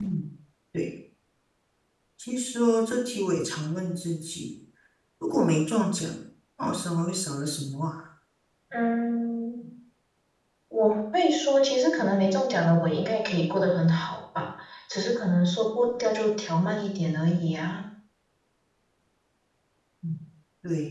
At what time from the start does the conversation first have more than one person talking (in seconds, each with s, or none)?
none